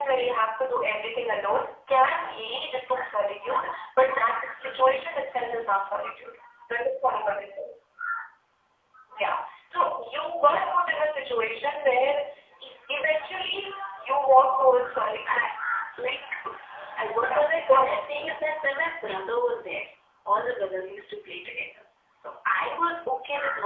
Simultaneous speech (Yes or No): Yes